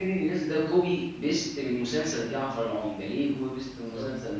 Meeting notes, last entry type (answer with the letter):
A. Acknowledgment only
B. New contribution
B